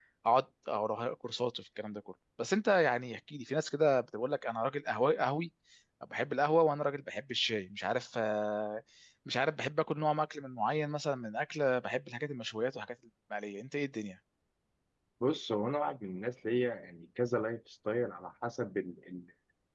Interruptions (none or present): none